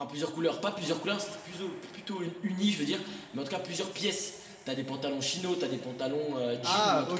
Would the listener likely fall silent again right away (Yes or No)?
Yes